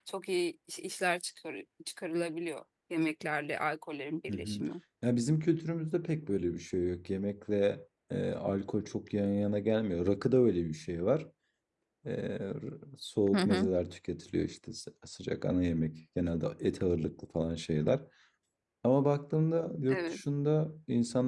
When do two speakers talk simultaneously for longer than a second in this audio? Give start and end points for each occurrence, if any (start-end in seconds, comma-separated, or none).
none